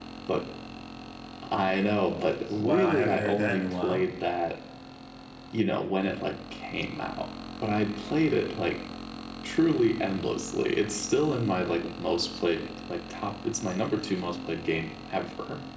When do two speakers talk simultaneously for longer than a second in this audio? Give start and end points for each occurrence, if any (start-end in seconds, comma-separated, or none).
2.5-4.0